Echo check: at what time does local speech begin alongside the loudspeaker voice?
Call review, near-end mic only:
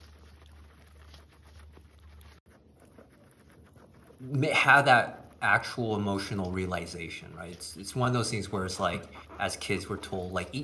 4.2 s

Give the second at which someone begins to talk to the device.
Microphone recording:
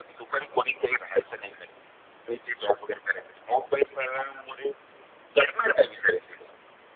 none

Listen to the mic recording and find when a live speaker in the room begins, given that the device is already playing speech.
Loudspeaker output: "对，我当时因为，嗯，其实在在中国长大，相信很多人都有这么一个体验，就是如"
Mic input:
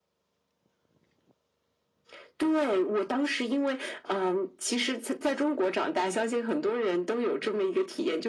none

